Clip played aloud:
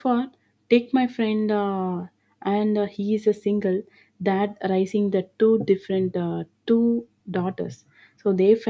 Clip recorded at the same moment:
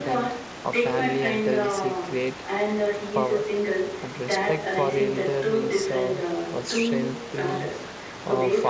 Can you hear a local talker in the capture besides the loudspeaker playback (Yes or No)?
Yes